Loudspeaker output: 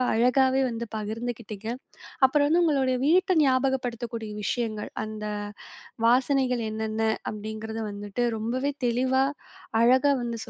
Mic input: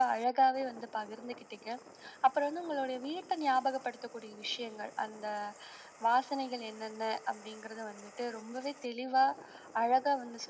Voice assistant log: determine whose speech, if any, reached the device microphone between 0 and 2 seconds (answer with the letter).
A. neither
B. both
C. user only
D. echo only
D